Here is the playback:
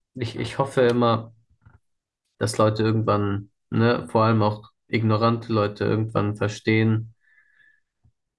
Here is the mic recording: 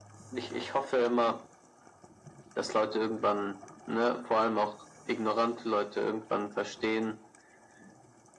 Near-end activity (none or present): none